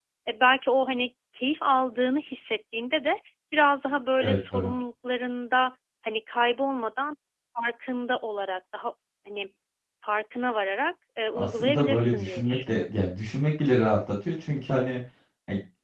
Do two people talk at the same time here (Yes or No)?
Yes